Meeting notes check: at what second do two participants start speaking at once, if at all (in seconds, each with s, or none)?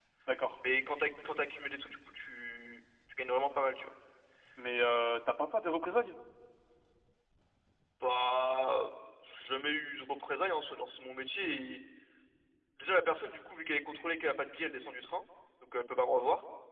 none